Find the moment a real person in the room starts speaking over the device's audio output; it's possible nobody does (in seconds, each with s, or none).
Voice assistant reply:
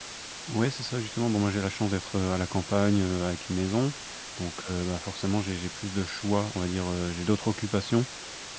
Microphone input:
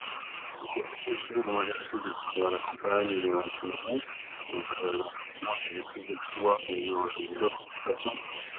none